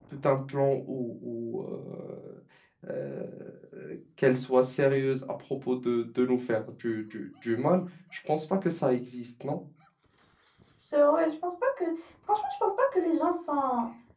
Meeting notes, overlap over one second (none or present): none